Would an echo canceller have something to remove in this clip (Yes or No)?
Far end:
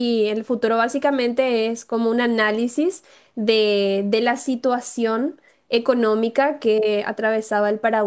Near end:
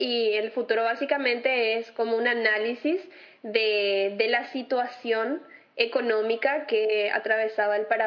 Yes